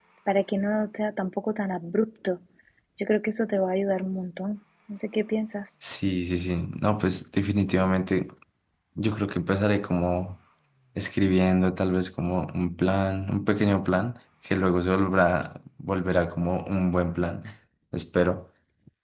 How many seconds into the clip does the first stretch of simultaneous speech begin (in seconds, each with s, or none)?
none